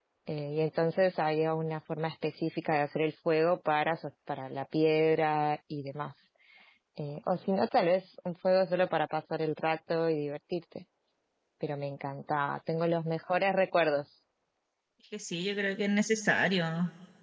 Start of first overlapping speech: none

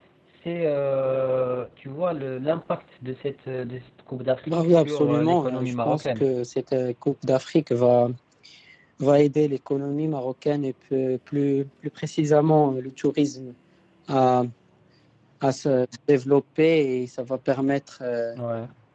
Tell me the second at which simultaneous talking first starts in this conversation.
4 s

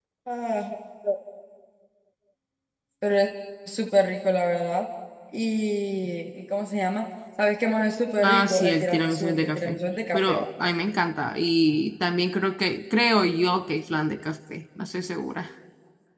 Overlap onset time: 8 s

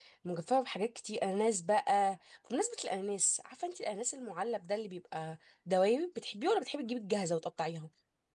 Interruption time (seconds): none

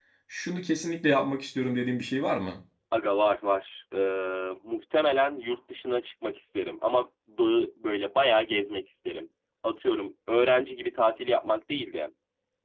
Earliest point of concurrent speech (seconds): none

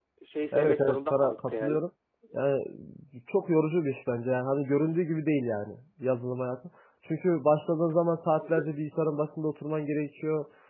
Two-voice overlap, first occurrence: 1 s

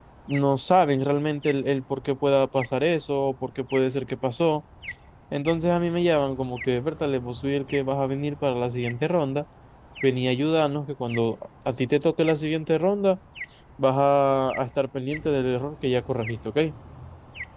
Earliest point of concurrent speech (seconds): none

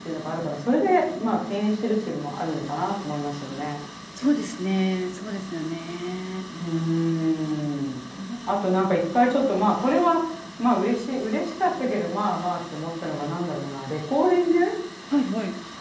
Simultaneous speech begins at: none

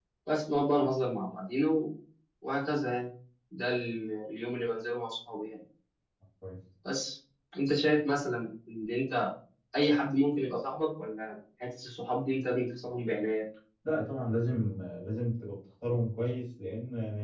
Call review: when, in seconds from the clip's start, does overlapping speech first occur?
none

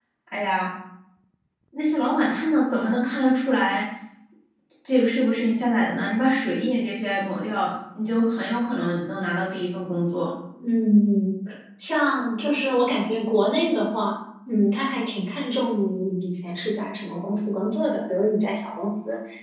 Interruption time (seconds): none

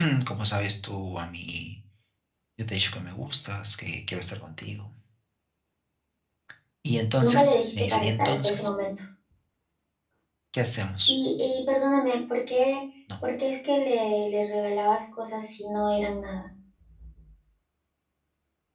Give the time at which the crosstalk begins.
7 s

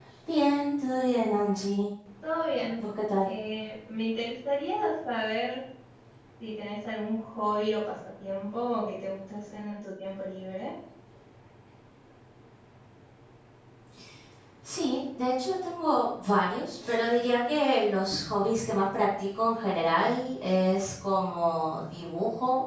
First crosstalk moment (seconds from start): none

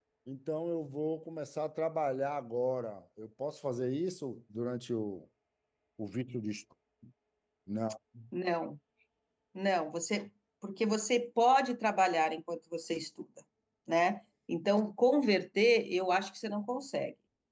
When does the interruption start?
none

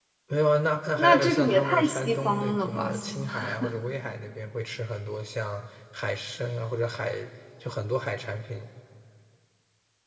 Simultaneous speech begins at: 1 s

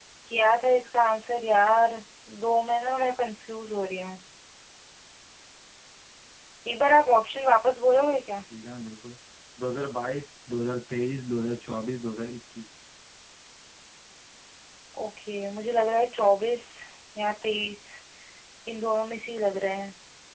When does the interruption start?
none

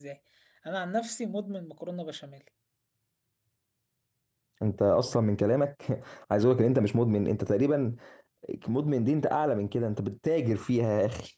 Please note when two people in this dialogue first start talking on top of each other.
none

